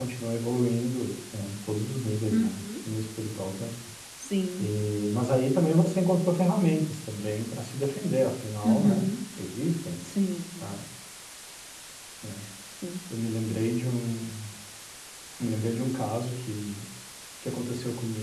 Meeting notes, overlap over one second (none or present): none